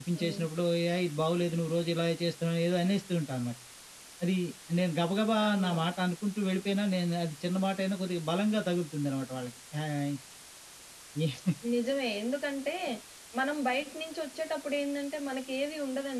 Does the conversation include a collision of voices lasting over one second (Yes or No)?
No